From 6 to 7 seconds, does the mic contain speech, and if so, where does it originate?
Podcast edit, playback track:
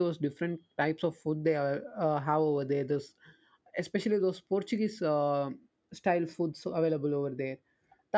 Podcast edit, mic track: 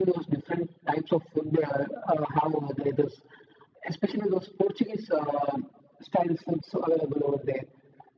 echo only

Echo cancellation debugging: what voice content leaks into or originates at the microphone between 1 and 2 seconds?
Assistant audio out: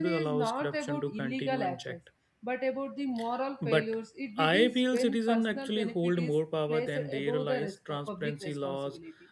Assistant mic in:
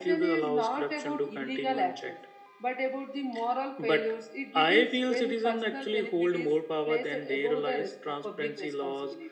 echo only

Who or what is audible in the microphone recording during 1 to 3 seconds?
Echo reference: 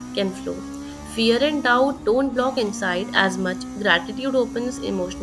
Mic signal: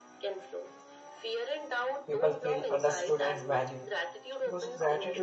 both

